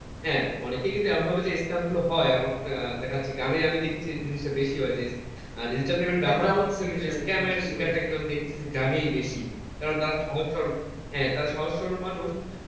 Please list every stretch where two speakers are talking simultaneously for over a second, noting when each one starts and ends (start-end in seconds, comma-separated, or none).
6.2-7.9